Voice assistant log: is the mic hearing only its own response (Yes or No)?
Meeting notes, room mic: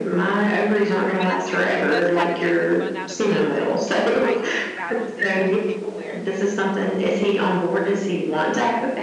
No